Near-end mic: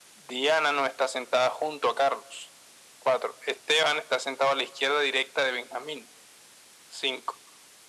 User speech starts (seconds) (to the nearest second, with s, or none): none